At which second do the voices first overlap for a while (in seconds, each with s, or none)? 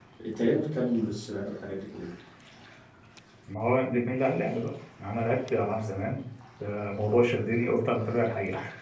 none